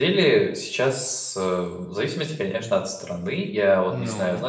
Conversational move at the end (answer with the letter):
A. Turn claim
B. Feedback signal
B